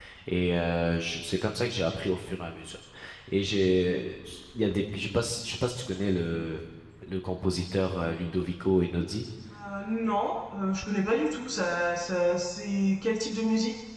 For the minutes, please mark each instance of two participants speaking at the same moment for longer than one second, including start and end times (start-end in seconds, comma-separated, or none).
none